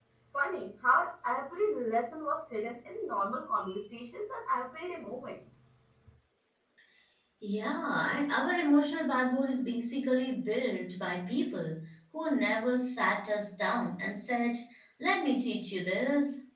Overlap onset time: none

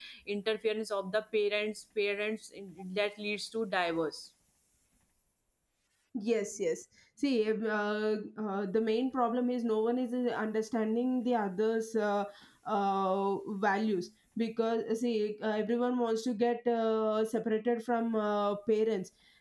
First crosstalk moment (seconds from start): none

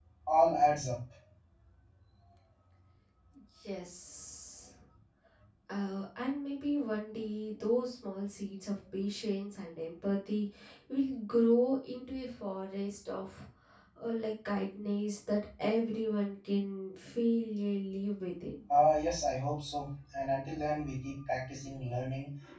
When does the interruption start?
none

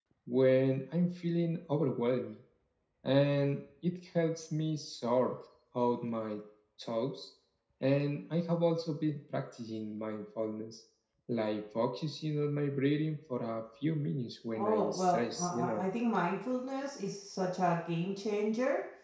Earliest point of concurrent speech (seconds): 14.5 s

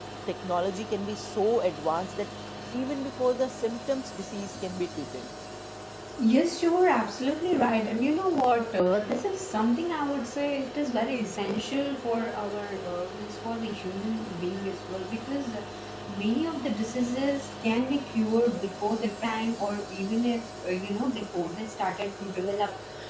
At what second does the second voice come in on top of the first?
none

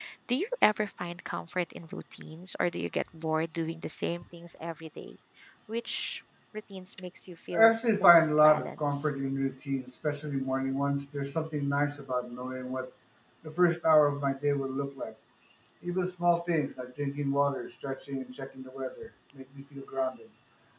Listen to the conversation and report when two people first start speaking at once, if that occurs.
7.5 s

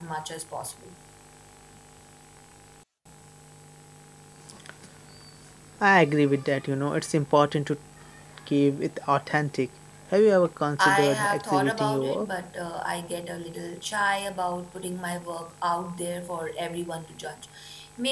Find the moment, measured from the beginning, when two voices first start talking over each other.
10.8 s

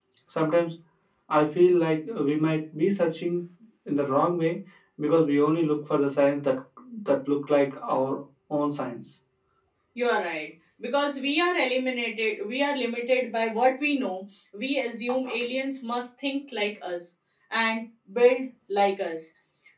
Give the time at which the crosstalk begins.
none

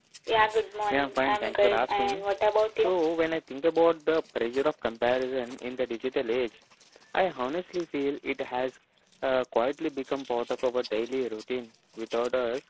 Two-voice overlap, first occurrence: 0.9 s

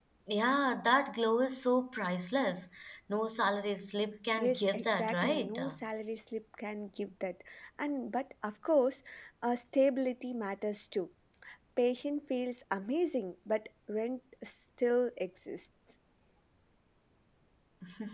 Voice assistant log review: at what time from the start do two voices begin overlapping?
4.4 s

